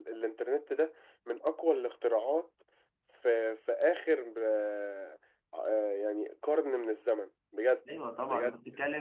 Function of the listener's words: taking over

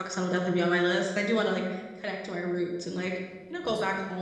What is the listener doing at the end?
listening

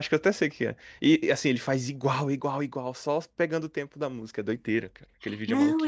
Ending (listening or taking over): taking over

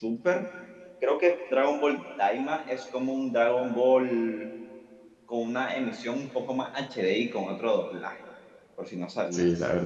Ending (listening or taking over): taking over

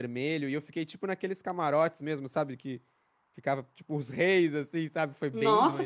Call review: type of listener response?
taking over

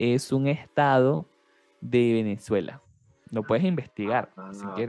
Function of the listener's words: taking over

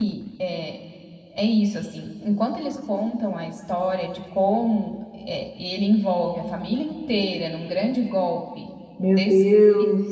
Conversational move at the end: taking over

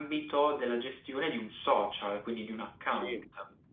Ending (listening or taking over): taking over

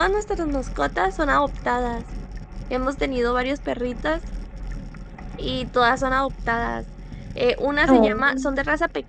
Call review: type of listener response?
listening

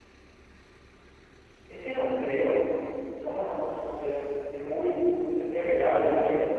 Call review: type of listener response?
taking over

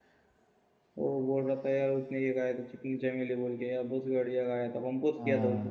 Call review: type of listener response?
taking over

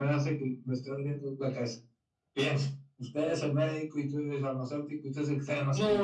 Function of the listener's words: taking over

